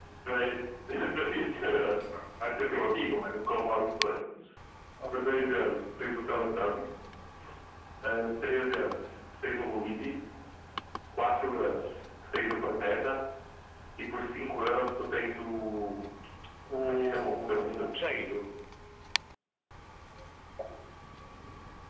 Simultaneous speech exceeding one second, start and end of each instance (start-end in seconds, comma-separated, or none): 16.9-18.3